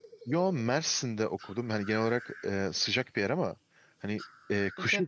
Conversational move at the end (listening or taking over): listening